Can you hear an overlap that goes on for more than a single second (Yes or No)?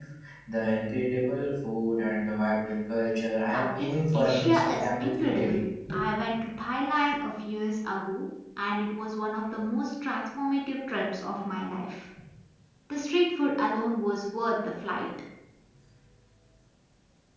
Yes